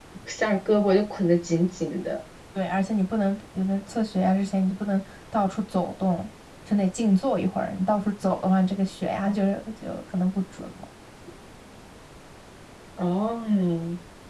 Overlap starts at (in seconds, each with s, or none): none